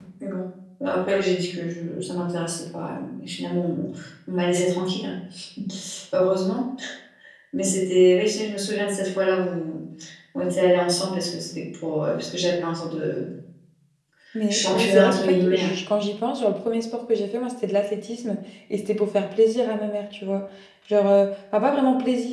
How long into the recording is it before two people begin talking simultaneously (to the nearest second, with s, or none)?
15 s